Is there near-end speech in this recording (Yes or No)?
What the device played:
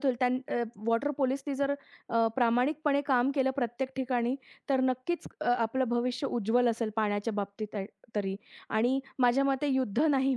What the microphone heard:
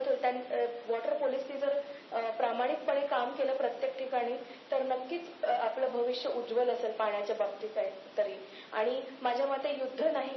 No